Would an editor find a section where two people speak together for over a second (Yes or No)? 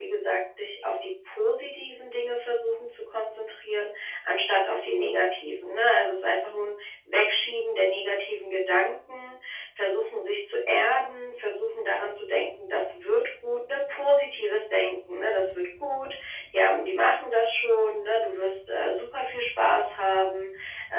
No